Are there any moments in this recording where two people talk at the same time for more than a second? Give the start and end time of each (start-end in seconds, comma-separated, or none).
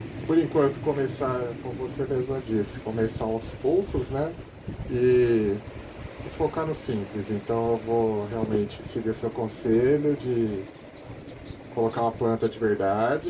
none